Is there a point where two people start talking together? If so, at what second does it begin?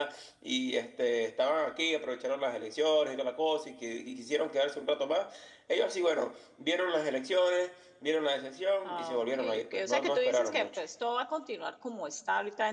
8.8 s

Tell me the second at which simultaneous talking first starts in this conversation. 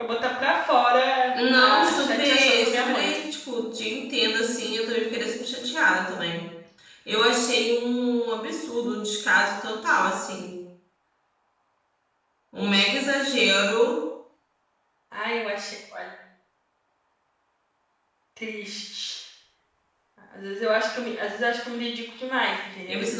1.5 s

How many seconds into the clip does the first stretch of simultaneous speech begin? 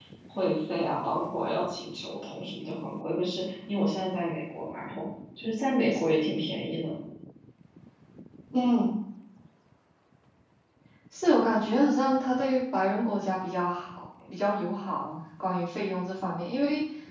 none

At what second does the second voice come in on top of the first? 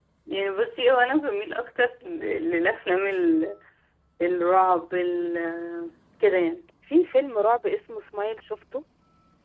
none

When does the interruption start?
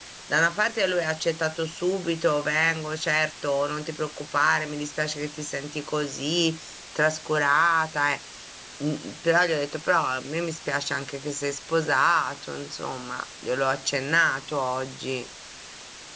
none

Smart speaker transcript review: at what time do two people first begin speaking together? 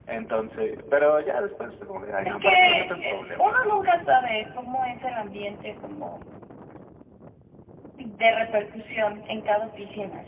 2.2 s

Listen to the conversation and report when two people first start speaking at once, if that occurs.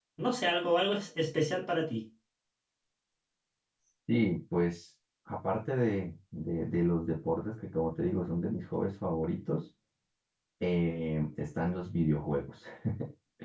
none

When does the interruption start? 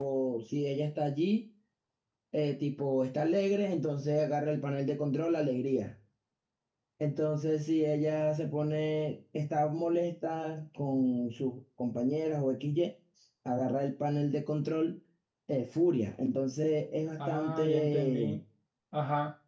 17.2 s

